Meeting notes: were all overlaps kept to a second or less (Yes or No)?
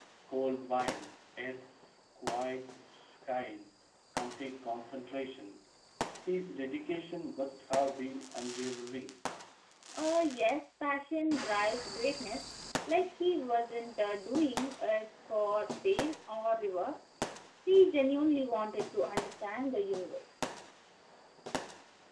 Yes